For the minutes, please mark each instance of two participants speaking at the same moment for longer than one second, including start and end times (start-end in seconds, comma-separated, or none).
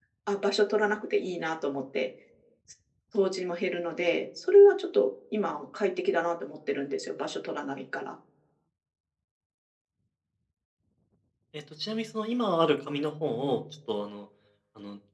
none